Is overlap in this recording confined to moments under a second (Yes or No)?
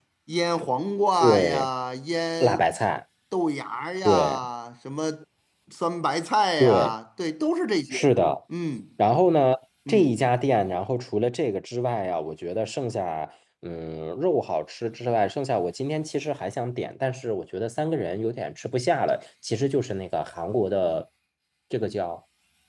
Yes